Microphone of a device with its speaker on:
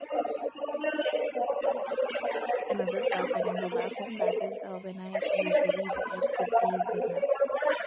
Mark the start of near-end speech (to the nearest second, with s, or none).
3 s